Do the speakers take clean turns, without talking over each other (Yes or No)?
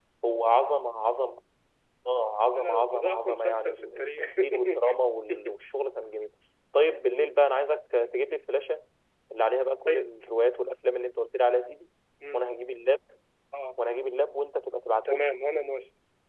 No